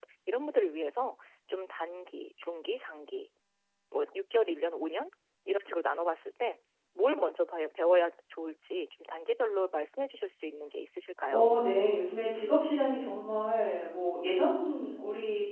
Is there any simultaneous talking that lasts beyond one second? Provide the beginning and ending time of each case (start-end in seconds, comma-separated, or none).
none